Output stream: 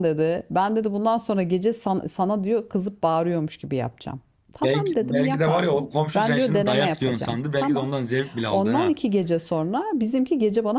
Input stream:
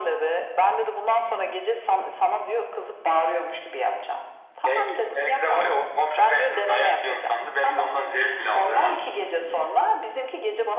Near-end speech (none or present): none